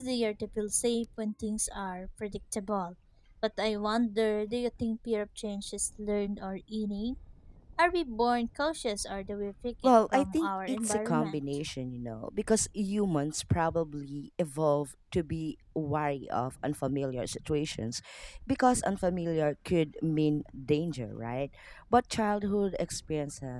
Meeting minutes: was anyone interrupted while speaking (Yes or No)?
Yes